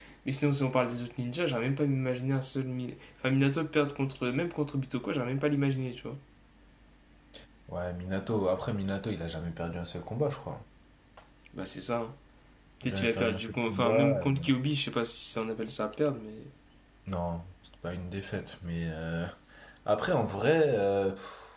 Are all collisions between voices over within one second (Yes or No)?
No